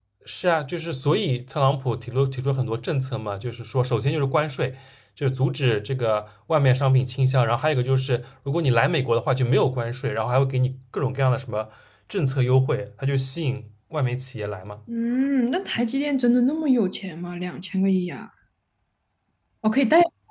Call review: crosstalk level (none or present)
none